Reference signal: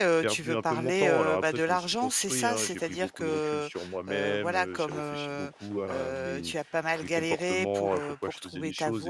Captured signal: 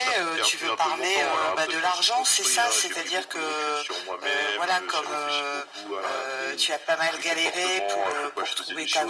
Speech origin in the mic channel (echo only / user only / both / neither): echo only